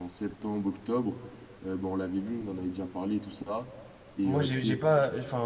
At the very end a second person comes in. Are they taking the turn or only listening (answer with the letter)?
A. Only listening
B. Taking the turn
B